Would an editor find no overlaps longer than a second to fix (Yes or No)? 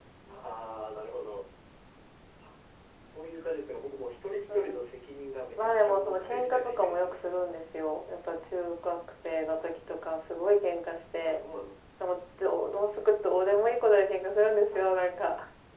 No